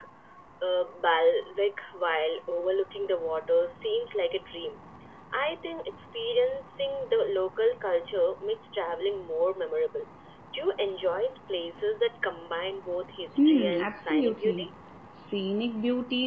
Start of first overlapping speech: 13.4 s

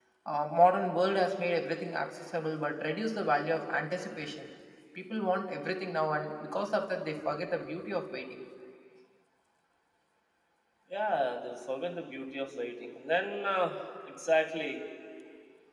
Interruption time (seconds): none

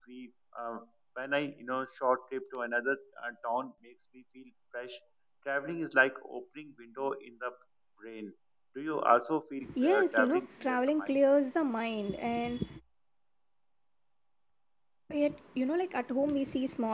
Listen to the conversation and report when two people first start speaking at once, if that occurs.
9.6 s

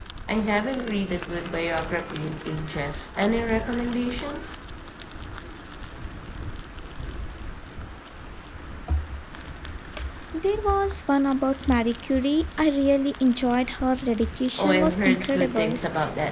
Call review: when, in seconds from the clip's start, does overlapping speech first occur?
14.6 s

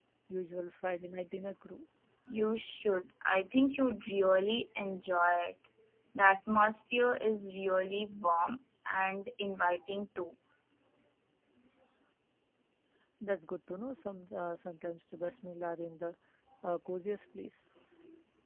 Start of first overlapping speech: none

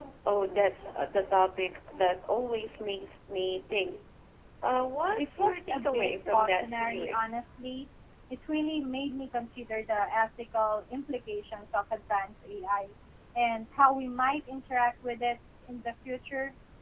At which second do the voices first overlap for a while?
5.2 s

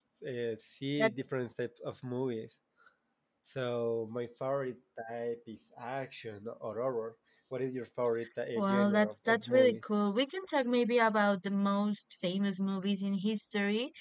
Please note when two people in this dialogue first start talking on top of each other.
8.6 s

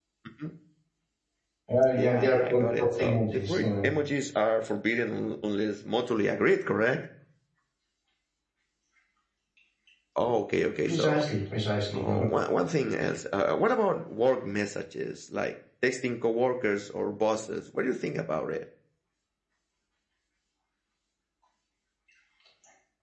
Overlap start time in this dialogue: 2.0 s

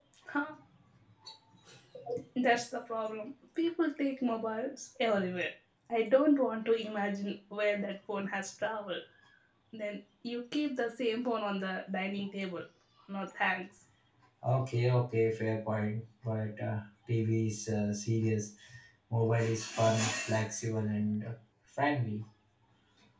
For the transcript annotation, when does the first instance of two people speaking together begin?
none

